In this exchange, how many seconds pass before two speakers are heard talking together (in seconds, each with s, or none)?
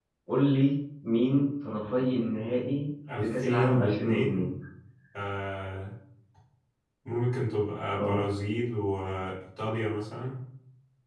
3.2 s